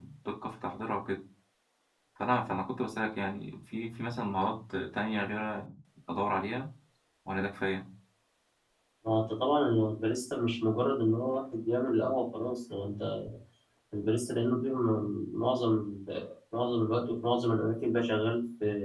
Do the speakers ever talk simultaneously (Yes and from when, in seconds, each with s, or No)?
No